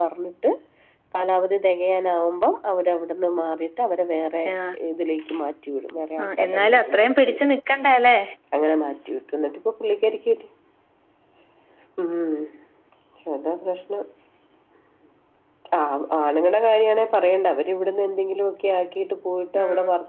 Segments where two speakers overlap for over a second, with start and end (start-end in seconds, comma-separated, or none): 6.2-7.4